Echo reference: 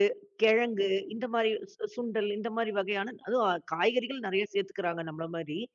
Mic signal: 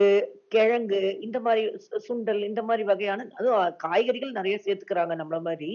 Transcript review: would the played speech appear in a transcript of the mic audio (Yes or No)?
Yes